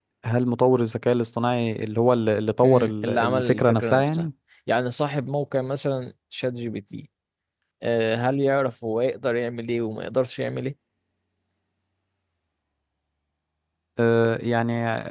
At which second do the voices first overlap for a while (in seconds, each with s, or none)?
2.6 s